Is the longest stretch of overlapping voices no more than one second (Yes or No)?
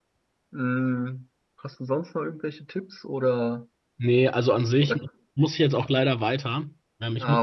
Yes